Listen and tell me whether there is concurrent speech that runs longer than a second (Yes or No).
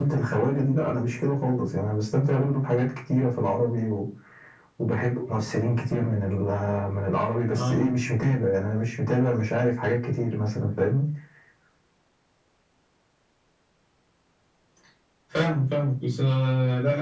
No